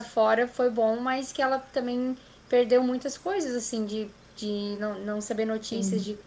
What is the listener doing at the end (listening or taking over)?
listening